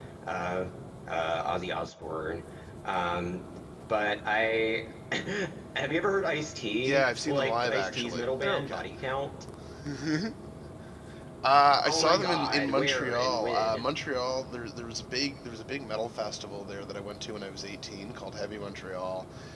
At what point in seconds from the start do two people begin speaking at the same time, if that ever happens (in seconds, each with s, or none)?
6.8 s